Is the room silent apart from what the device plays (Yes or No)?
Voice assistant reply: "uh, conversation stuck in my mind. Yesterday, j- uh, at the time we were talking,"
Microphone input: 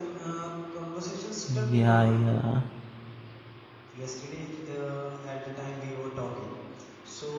No